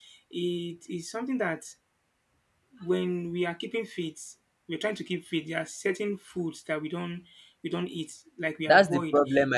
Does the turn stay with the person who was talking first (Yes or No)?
No